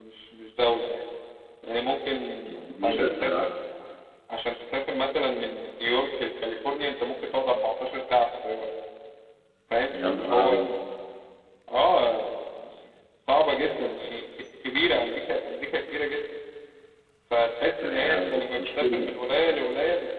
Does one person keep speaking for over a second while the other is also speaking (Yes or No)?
Yes